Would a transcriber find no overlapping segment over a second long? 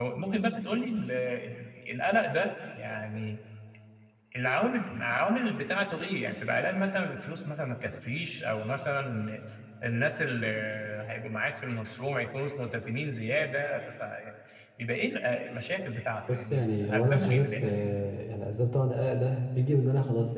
No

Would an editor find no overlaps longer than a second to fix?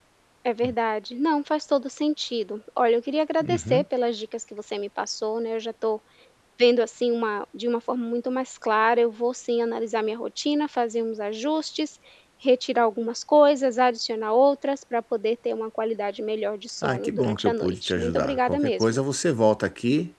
No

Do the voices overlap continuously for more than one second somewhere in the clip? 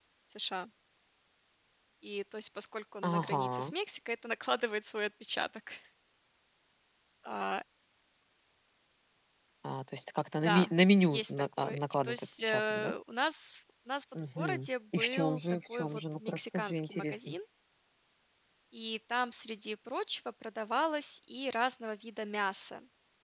Yes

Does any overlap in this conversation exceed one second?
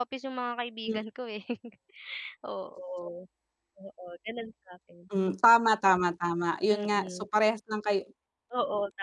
No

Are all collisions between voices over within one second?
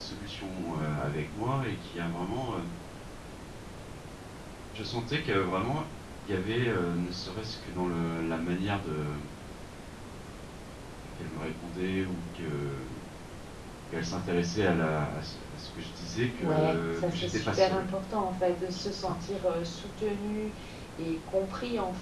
No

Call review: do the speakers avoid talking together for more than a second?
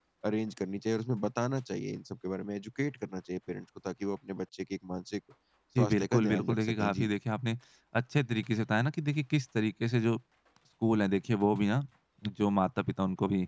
No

